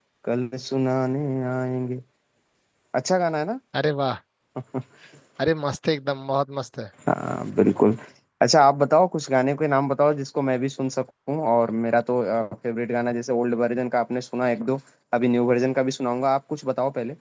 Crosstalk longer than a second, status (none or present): none